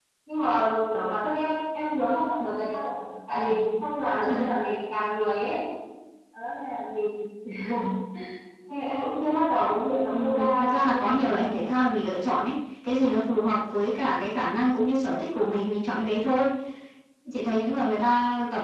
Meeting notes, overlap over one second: present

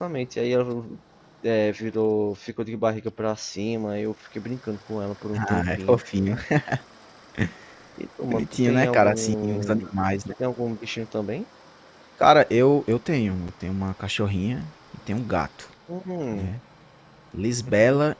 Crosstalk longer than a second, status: present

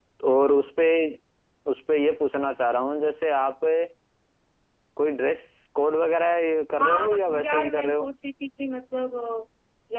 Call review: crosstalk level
present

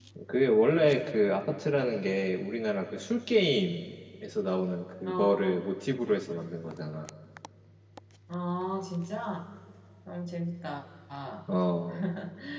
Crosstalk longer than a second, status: none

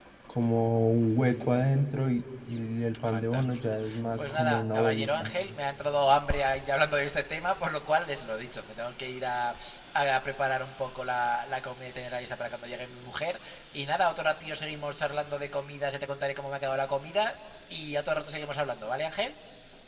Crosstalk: present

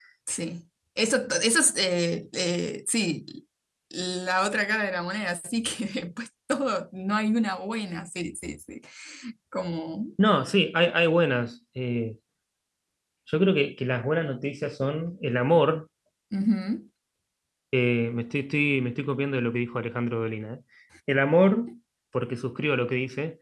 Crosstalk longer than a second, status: none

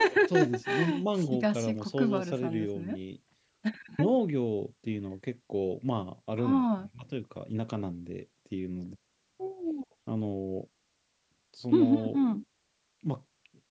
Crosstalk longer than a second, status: present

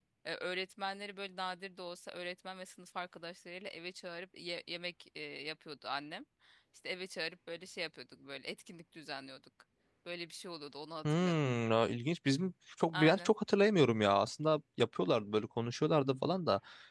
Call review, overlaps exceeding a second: none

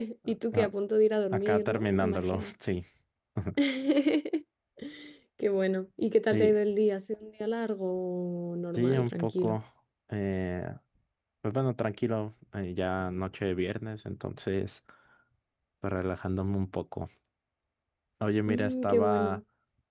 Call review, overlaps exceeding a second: present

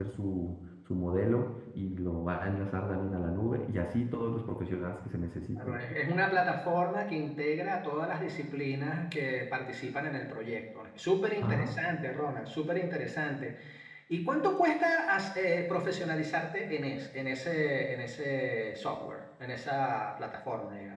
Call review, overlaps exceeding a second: none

